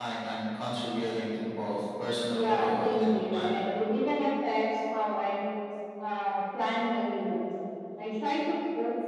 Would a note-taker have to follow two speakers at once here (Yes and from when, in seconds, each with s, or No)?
Yes, from 2.3 s